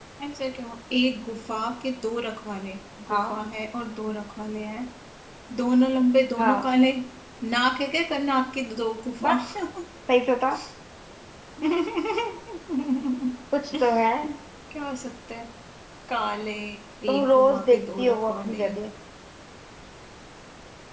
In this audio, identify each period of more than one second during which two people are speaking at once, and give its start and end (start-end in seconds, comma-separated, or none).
17.1-18.6